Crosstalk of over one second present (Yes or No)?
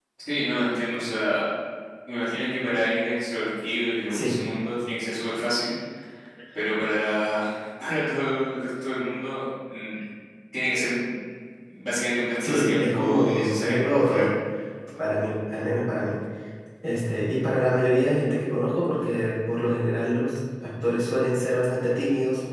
Yes